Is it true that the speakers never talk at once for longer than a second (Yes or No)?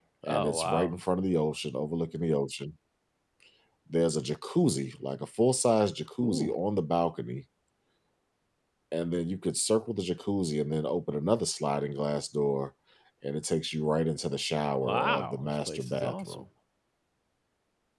No